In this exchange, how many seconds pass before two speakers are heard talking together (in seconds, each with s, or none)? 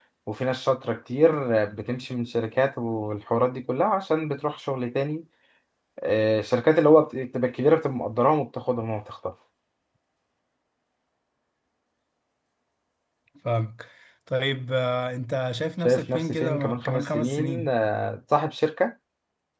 15.8 s